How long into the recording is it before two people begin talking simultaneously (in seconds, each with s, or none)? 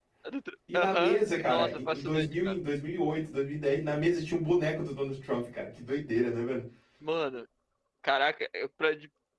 0.7 s